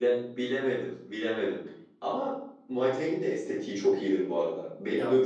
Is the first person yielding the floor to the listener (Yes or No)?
No